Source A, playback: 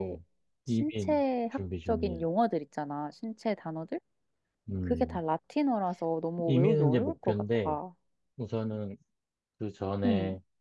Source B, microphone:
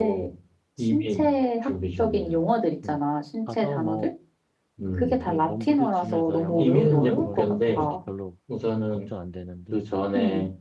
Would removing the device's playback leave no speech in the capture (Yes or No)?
No